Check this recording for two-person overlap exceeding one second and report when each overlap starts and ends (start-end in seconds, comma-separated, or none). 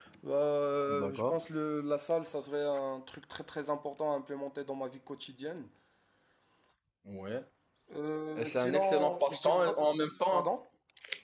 8.4-9.8